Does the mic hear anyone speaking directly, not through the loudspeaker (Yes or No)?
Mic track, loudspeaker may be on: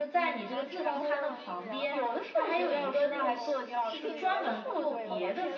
Yes